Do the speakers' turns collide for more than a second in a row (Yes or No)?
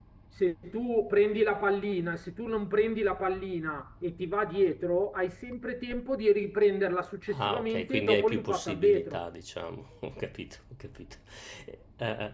Yes